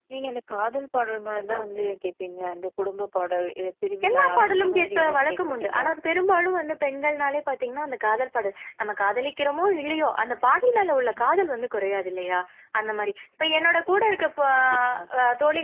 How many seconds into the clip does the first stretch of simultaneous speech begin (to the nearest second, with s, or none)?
4 s